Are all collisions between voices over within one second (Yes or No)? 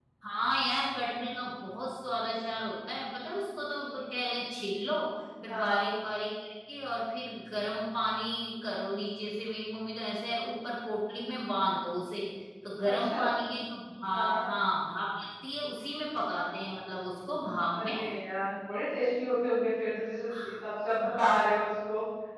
Yes